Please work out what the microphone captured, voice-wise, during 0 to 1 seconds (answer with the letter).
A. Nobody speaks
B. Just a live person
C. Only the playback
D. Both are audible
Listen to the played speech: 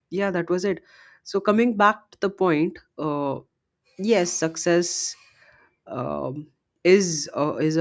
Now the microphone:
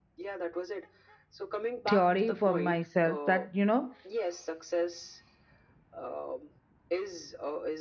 C